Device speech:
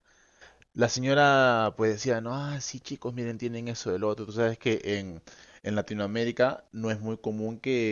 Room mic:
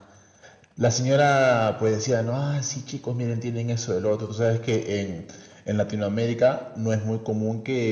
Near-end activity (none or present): none